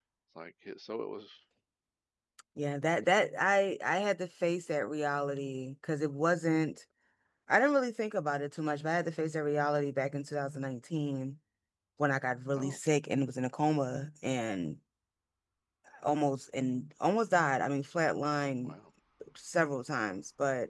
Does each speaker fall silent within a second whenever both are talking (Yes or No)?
Yes